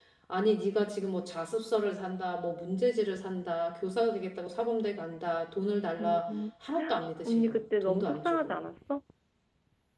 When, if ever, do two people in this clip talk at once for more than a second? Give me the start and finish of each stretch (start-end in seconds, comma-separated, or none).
7.2-8.6